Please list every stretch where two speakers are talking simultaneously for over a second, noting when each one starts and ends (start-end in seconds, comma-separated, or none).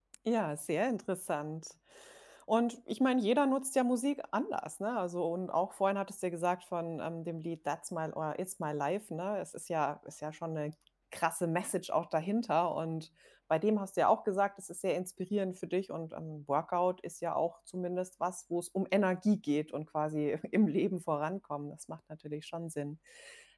none